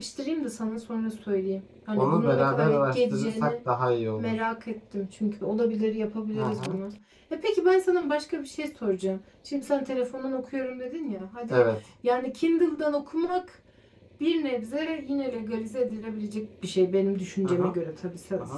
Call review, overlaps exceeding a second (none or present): present